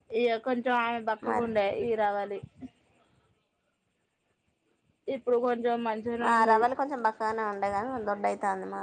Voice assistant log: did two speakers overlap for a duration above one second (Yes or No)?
No